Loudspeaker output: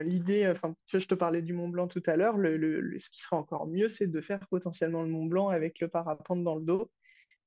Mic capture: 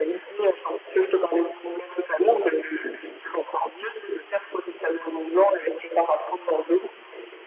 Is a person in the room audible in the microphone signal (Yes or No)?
No